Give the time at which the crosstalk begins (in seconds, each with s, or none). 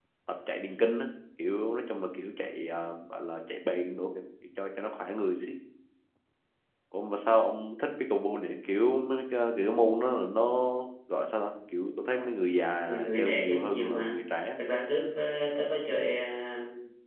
12.8 s